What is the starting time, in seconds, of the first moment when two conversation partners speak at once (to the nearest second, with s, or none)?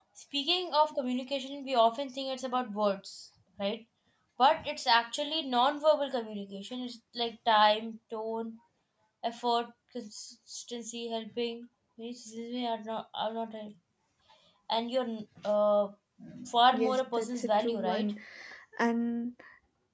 17 s